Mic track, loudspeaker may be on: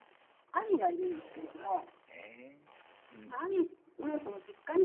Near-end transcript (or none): そうなんですね。うん。